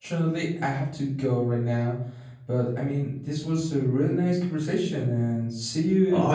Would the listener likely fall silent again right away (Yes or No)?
No